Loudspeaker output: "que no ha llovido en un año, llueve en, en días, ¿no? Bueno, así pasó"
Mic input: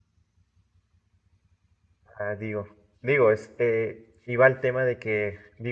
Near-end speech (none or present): present